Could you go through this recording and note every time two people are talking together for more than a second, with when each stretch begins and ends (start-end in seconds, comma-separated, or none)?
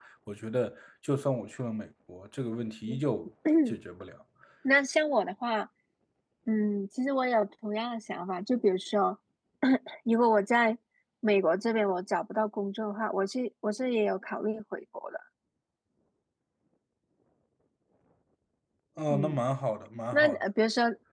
none